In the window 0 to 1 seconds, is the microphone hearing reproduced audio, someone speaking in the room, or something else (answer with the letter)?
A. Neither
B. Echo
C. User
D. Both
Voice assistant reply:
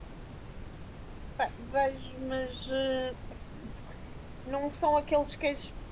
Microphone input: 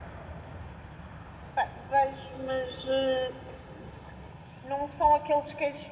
A